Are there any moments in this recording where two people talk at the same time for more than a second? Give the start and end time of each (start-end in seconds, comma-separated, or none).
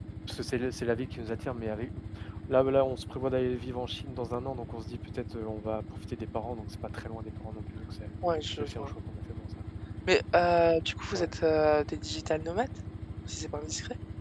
none